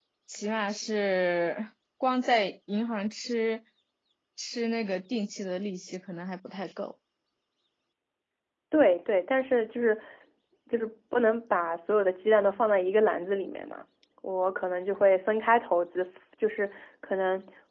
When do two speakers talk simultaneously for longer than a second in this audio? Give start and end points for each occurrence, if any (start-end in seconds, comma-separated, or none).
none